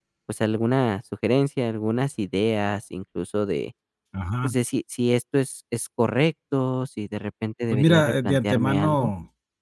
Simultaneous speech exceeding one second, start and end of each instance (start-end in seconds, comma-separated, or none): 7.7-9.1